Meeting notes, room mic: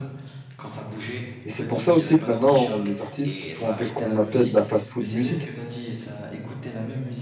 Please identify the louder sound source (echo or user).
user